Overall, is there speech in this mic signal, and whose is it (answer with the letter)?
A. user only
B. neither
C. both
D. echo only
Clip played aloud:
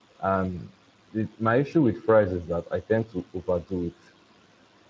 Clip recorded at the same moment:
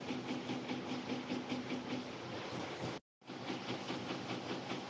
B